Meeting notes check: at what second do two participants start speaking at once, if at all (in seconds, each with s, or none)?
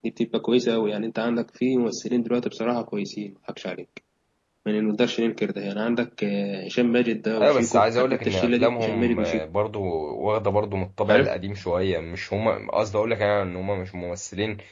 7.4 s